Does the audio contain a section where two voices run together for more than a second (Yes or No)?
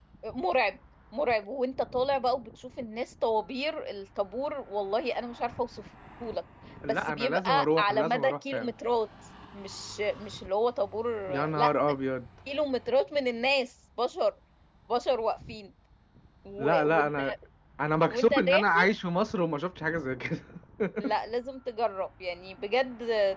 Yes